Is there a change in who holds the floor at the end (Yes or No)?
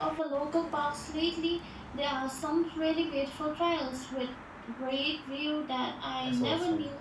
Yes